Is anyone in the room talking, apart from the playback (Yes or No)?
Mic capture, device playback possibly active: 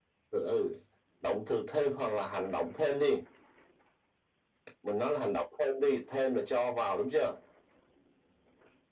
No